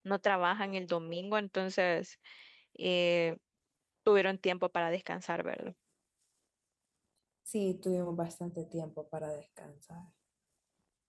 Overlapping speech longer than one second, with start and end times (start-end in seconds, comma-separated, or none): none